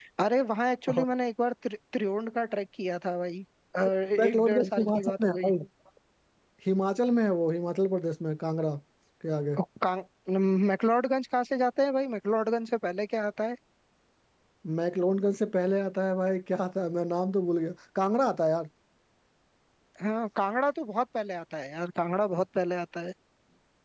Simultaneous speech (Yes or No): Yes